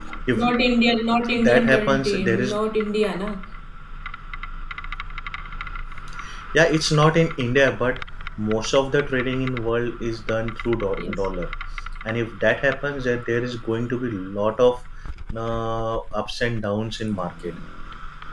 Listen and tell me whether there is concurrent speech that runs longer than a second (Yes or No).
Yes